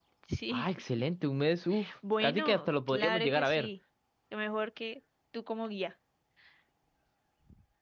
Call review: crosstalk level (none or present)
present